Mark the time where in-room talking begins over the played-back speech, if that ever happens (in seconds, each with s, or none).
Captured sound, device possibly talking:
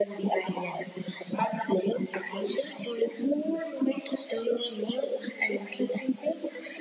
none